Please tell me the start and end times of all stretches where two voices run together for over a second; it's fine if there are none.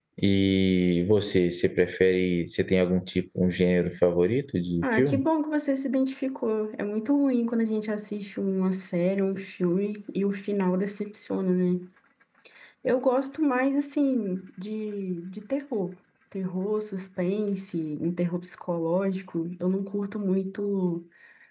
none

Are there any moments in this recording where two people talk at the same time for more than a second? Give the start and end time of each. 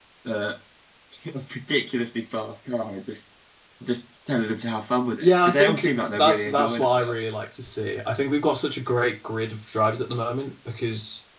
5.2-7.2

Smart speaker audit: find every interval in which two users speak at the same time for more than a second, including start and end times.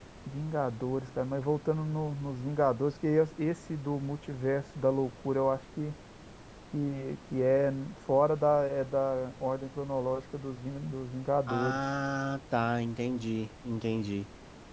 none

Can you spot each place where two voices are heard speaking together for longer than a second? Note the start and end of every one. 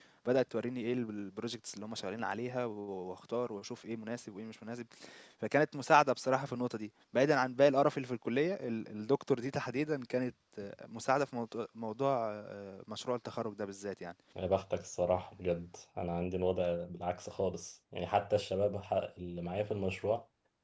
none

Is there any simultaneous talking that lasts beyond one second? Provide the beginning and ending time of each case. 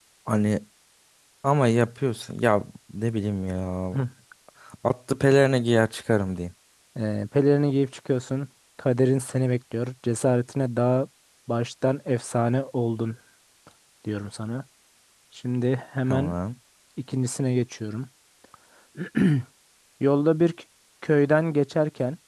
none

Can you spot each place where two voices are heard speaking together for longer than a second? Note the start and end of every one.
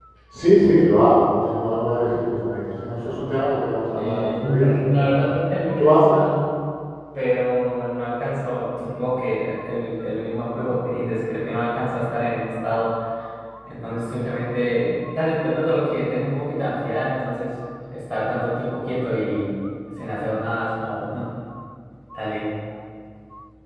3.9-5.3

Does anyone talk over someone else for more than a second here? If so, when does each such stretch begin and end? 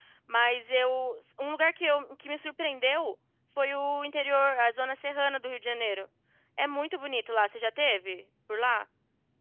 none

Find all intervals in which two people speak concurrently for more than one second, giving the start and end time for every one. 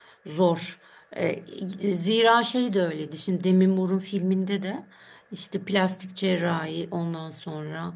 none

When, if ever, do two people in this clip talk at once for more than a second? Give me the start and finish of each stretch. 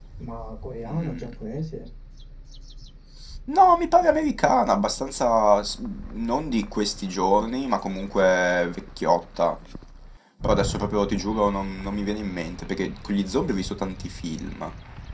none

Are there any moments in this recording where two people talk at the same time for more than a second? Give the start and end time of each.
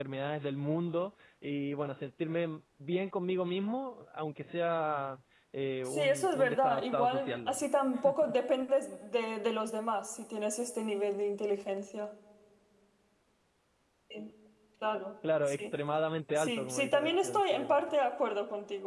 5.8-7.6, 16.4-17.8

